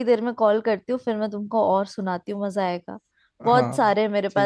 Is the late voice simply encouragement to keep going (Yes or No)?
No